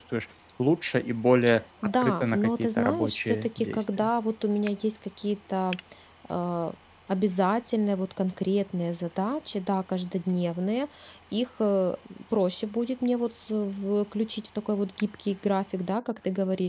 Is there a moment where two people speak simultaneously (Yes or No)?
Yes